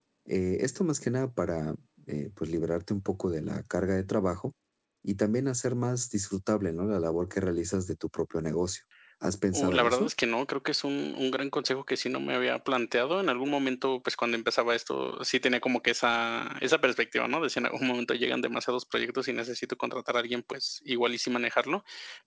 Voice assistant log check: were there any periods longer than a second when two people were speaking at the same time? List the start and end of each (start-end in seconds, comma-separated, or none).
none